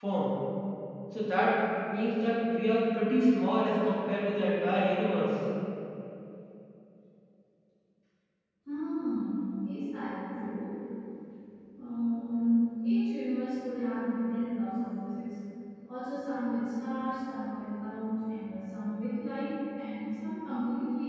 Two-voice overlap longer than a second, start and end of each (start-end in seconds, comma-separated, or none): none